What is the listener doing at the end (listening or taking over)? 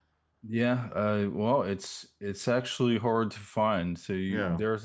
listening